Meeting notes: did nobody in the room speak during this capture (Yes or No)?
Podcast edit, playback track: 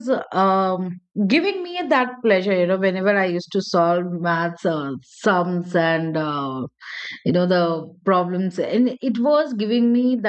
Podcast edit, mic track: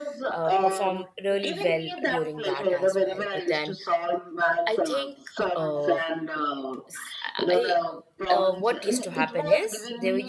No